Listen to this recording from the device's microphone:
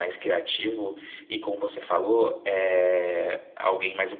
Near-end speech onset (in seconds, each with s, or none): none